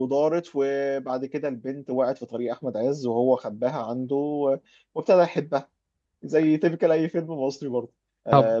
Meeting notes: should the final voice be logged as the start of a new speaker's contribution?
No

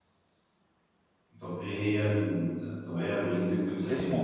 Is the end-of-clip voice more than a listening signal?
Yes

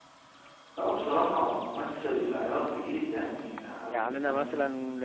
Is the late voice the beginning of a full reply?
Yes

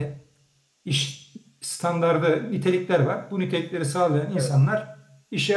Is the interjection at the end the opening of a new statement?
No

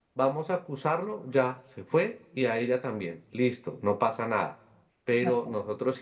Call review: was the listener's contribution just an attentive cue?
Yes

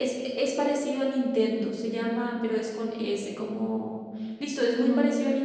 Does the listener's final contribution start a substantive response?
No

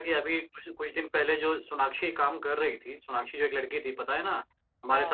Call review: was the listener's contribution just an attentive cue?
Yes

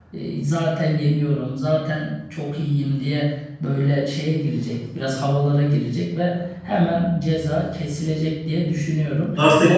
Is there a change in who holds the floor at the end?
Yes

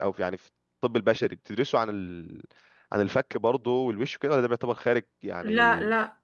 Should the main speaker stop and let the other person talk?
Yes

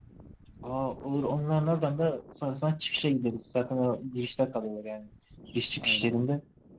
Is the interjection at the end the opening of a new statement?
No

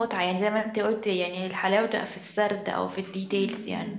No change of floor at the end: No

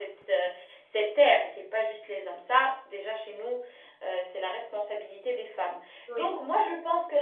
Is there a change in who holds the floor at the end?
No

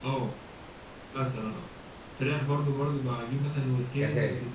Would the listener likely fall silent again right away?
Yes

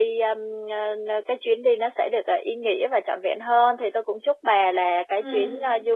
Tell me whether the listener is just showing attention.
Yes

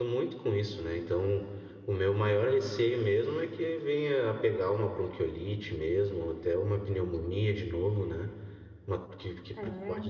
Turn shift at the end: No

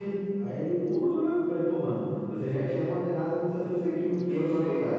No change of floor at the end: No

